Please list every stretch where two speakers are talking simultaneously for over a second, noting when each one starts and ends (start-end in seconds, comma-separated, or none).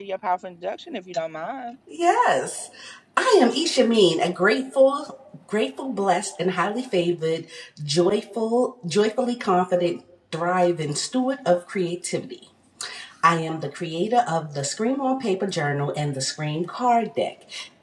none